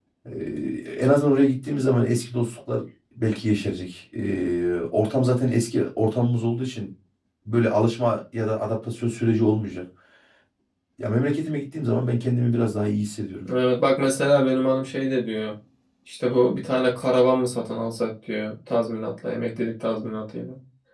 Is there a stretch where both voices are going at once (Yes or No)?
No